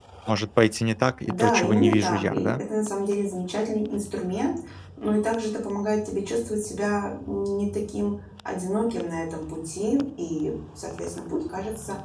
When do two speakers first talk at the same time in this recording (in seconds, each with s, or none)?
1.2 s